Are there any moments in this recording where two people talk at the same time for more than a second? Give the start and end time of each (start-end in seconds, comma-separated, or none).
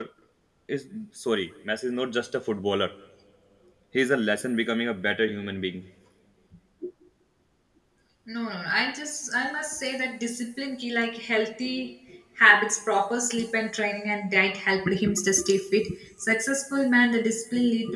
none